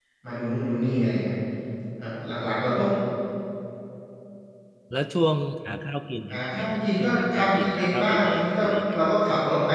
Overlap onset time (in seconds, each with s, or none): 6.3 s